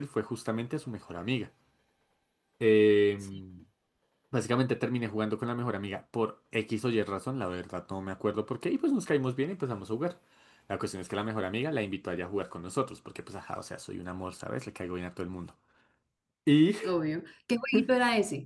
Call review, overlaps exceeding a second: none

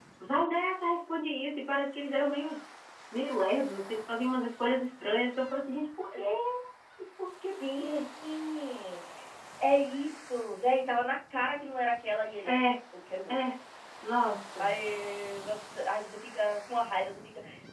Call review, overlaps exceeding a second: none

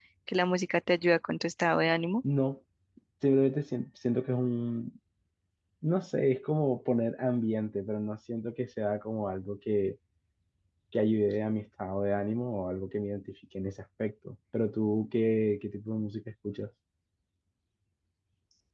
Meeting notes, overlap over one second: none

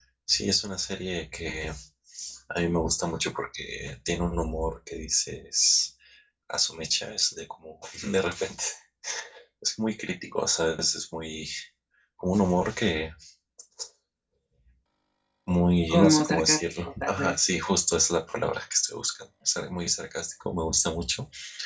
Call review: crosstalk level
present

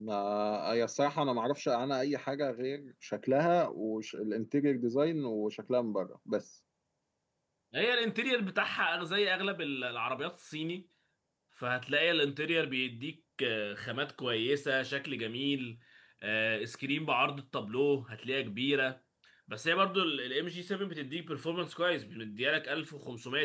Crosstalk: none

